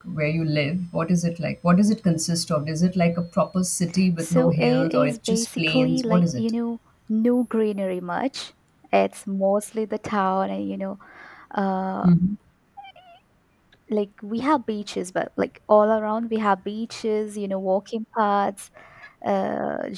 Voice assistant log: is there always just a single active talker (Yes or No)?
No